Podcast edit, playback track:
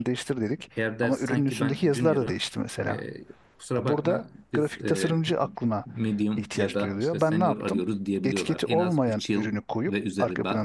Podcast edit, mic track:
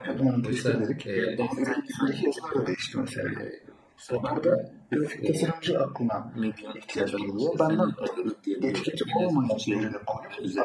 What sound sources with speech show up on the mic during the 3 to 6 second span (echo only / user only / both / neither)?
echo only